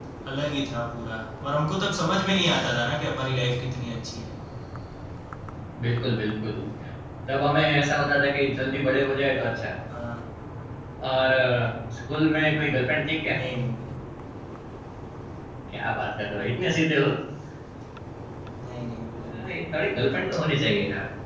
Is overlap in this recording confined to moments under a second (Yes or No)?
Yes